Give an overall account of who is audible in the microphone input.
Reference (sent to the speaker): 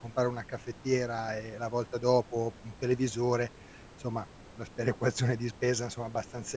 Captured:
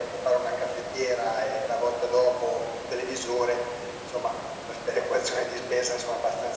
echo only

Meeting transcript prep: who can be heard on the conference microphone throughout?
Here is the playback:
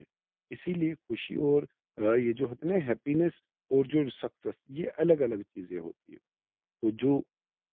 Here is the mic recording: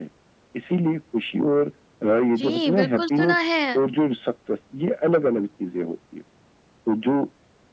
both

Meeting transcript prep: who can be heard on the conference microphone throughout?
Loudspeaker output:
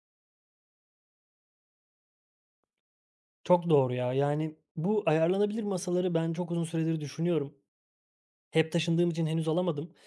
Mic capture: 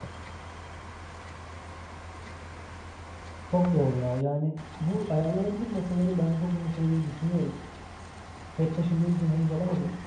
echo only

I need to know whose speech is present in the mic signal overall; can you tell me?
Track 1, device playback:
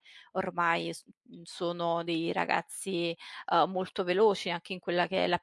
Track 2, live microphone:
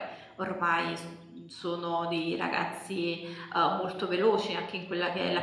echo only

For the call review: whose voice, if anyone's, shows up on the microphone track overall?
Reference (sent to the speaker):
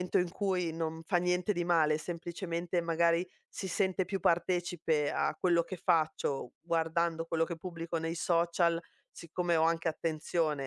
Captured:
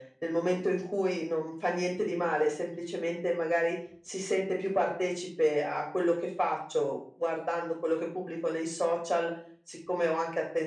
echo only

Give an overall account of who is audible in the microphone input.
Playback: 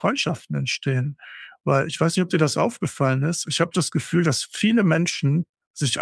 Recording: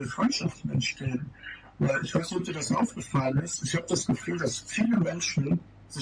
echo only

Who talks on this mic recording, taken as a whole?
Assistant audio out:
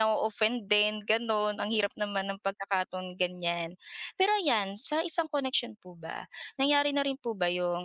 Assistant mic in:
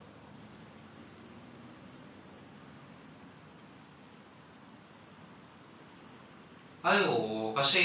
user only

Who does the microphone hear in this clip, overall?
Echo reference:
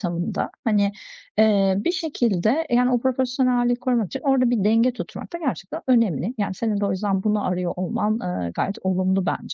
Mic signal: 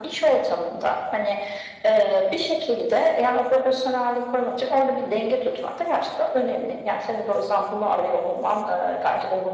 echo only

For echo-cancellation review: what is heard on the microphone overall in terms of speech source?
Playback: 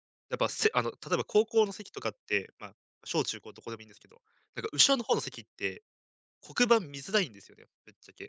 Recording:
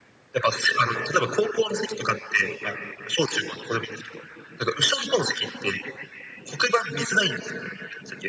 echo only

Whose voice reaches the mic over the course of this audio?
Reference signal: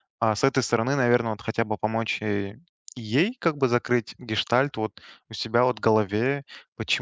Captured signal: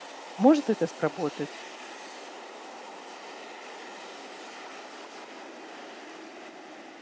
user only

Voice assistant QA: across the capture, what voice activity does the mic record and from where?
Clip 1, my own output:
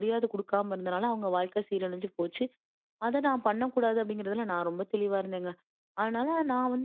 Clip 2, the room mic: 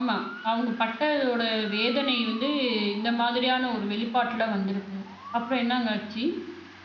user only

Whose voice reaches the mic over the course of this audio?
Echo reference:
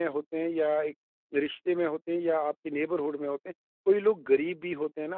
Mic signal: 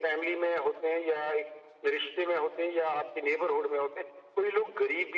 echo only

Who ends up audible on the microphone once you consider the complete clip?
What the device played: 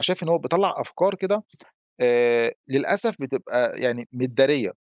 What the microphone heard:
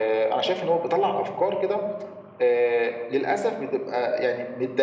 echo only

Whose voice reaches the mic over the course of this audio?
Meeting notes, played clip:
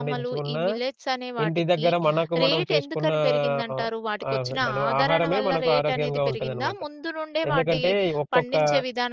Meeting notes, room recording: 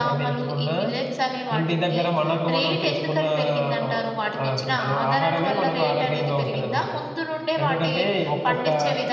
echo only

